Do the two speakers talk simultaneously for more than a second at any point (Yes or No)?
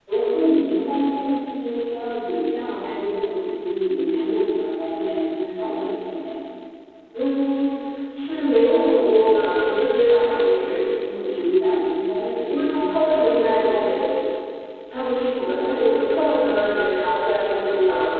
Yes